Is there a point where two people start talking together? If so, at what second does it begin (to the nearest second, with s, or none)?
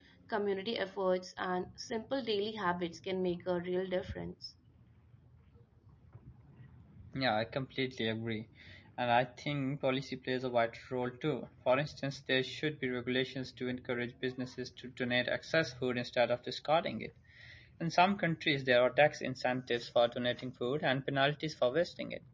none